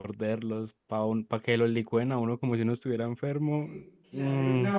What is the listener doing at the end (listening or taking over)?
taking over